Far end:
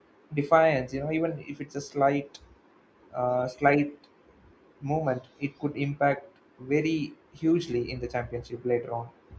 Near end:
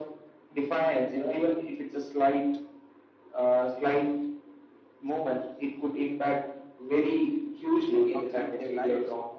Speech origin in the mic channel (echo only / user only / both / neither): both